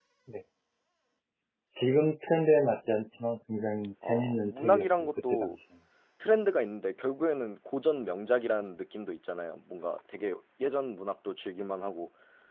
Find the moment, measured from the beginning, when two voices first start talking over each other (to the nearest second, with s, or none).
4 s